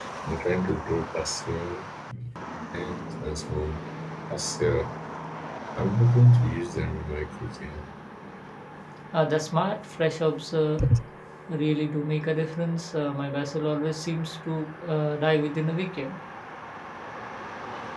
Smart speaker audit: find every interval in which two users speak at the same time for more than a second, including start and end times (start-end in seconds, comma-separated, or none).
none